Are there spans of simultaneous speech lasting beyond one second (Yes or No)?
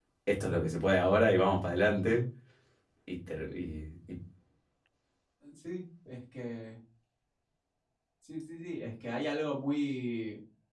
No